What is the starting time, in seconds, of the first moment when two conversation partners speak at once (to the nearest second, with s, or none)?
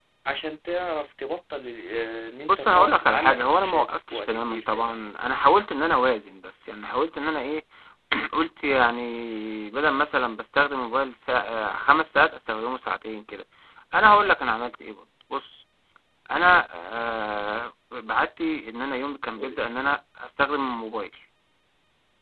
2 s